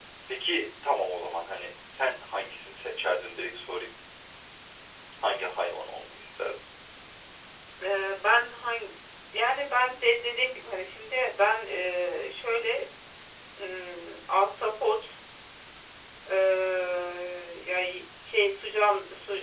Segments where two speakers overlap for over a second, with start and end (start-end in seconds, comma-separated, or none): none